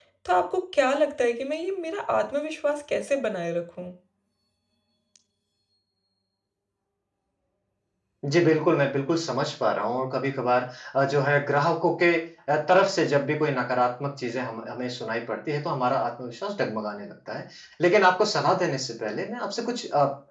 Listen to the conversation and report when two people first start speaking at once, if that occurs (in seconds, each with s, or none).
none